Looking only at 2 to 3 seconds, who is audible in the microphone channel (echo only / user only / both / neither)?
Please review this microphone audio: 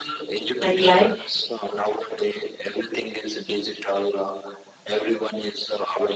echo only